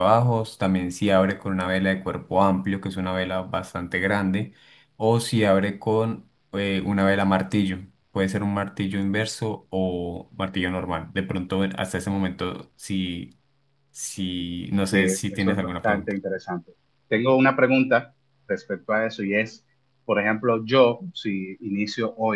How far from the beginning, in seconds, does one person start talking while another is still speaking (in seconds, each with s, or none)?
14.9 s